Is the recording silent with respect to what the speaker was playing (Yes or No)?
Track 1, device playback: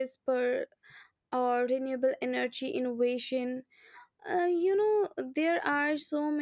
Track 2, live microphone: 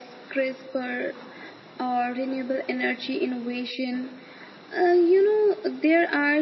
No